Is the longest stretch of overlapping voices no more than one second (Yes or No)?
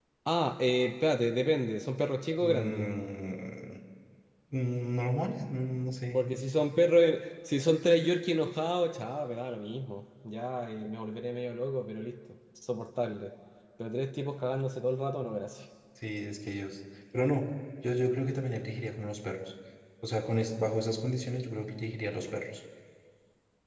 Yes